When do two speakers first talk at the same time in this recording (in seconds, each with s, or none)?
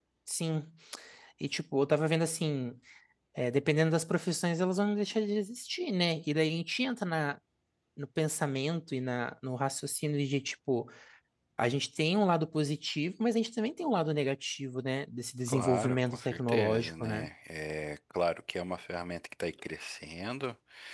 15.5 s